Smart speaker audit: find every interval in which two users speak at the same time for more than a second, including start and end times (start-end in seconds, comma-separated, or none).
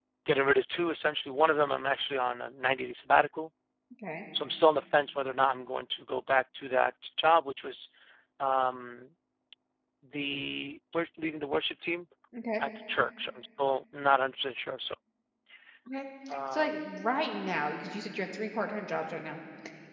none